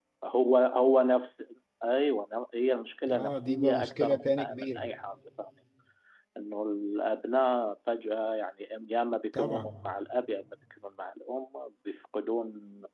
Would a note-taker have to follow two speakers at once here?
Yes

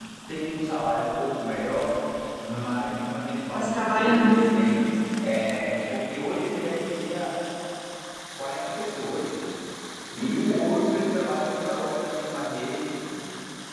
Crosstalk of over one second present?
Yes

